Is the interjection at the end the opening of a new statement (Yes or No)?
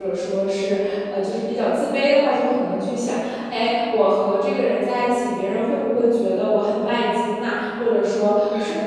No